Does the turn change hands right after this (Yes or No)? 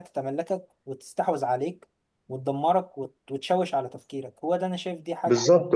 Yes